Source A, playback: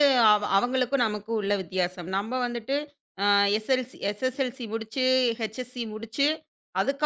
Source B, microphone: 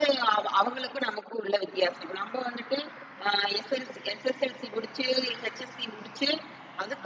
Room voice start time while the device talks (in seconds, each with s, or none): none